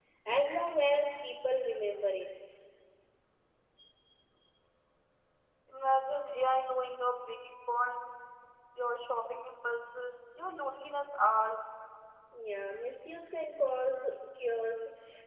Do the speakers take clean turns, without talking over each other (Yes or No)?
Yes